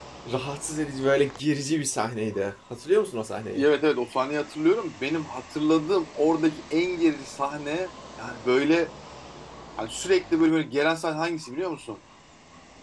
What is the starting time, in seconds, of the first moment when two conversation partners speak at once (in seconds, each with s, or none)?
none